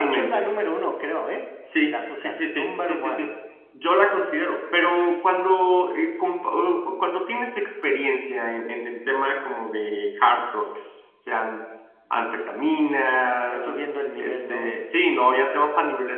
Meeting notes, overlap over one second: present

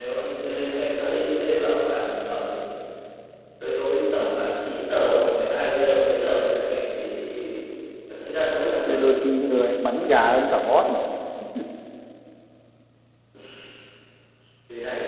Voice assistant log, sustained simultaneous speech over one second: none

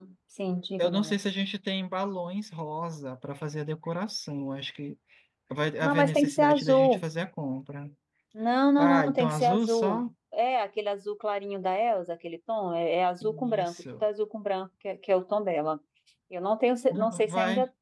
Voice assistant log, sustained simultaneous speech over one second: present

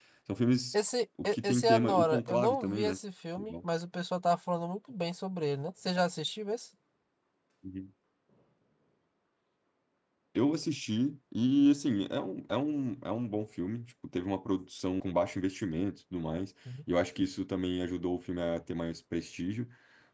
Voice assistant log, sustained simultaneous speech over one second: present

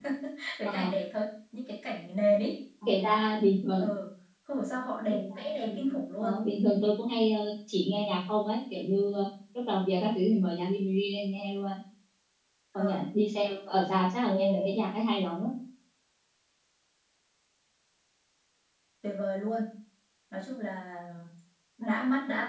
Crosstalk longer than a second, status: none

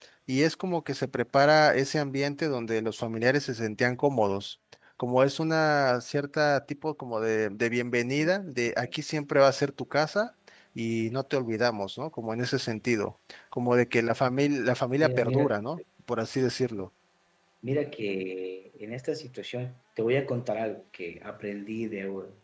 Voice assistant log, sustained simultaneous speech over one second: none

